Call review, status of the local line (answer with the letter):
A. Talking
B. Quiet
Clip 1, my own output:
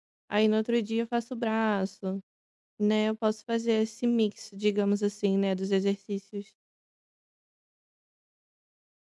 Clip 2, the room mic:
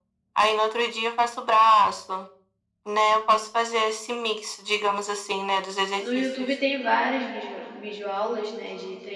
A